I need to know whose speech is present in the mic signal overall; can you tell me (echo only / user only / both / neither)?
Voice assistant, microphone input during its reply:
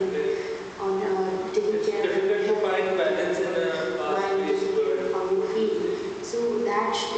echo only